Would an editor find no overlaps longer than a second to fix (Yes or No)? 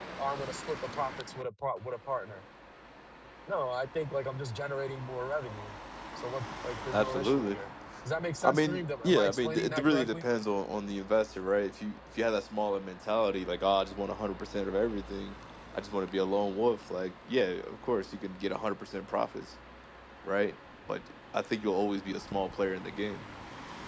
No